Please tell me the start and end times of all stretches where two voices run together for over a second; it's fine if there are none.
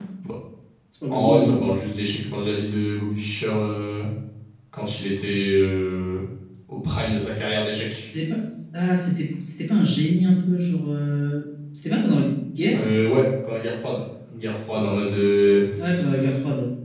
none

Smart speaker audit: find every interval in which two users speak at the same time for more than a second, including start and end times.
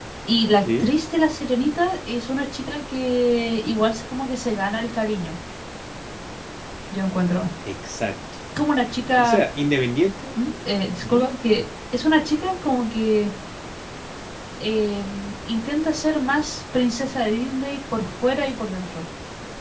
none

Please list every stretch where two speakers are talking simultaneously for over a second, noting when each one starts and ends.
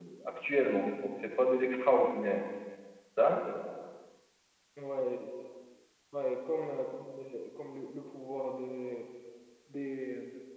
none

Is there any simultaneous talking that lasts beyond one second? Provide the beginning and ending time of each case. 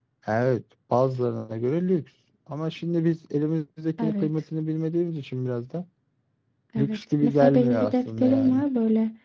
6.8-8.6

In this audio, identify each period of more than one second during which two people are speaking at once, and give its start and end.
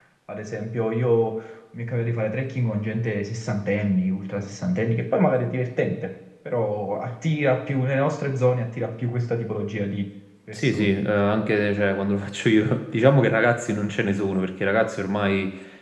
none

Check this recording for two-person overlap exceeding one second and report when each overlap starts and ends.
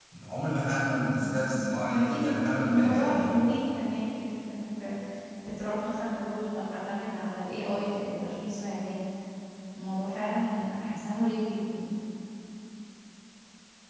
1.9-3.3

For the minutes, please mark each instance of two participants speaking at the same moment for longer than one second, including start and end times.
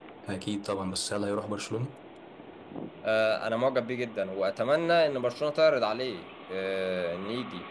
none

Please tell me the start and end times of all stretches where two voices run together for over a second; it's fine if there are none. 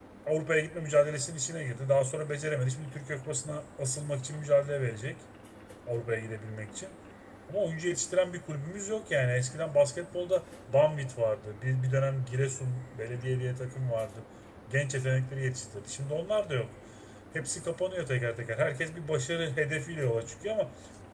none

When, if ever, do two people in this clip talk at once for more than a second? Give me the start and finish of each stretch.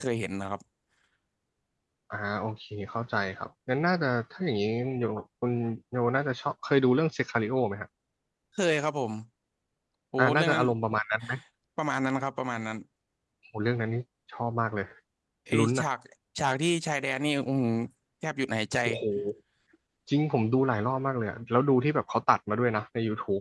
none

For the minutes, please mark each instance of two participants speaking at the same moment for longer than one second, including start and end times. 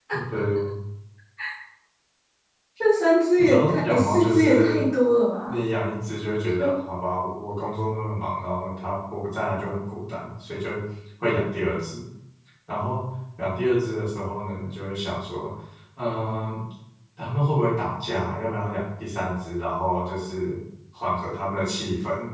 3.4-4.8

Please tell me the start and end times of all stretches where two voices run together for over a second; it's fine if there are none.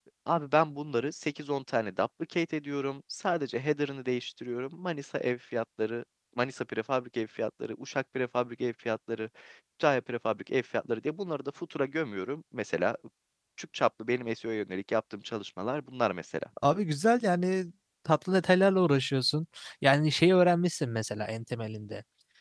none

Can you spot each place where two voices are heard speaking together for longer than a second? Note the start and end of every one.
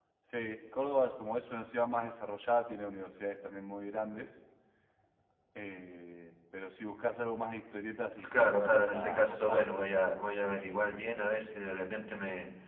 8.3-9.7

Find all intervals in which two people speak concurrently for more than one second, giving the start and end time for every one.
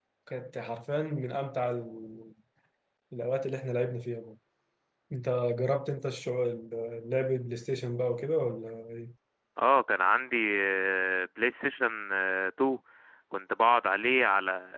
none

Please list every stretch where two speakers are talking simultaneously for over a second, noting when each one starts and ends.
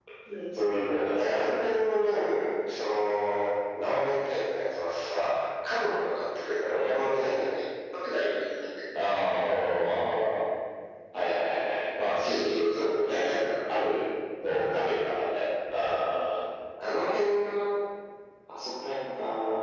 12.2-13.7

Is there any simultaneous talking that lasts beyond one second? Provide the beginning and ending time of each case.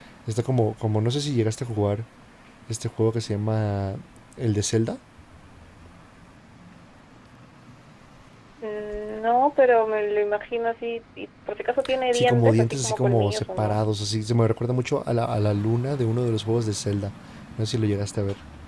12.1-13.8

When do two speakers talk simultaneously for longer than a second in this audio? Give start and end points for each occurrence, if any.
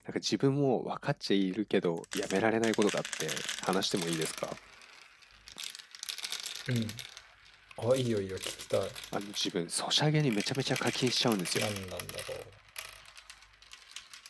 none

